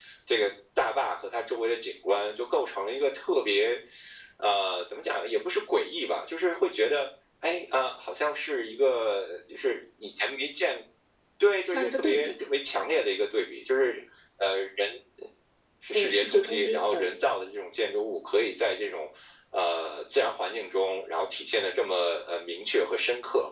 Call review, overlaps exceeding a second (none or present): present